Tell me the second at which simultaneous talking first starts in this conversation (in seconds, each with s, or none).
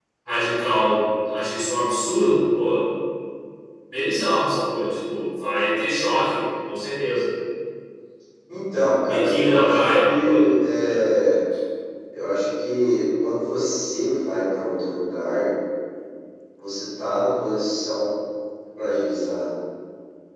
9.1 s